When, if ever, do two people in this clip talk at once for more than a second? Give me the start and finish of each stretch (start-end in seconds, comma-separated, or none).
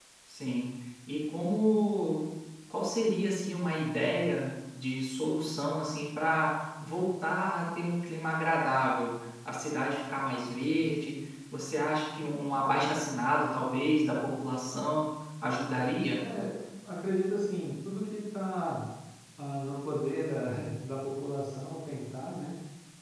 none